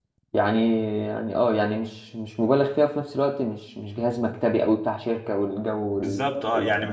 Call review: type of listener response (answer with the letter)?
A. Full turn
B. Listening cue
A